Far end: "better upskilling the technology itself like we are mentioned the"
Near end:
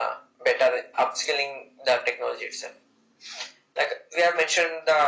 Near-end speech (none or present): none